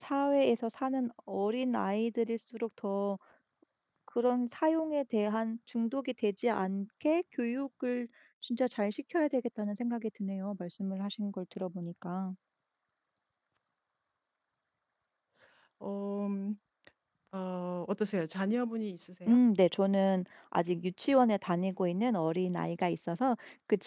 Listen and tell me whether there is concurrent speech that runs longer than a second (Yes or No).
No